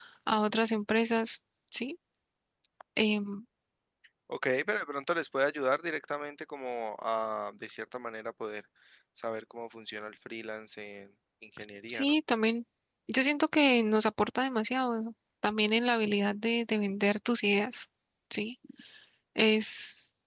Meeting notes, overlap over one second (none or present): none